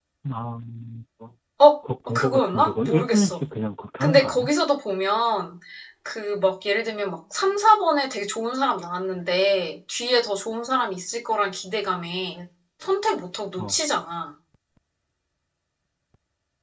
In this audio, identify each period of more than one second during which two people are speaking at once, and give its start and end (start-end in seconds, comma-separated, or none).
2.1-3.4